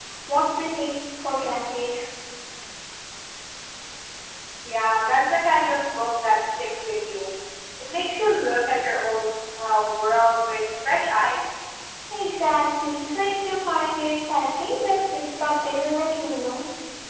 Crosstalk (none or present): none